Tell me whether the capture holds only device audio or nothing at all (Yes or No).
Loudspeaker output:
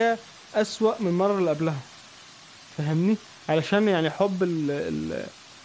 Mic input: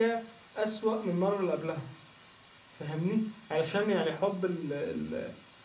Yes